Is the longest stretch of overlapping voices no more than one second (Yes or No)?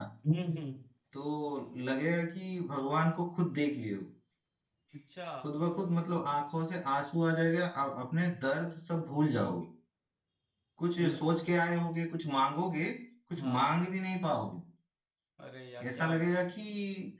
Yes